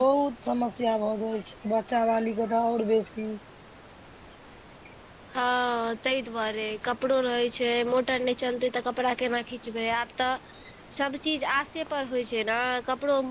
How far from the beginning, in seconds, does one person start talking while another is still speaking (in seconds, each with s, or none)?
none